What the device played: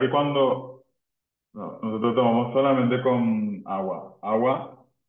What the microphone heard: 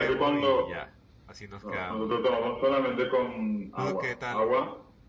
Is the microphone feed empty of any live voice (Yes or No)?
No